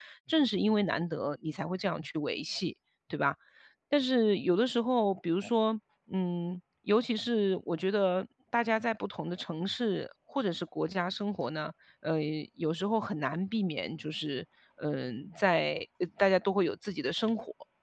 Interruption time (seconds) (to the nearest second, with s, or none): none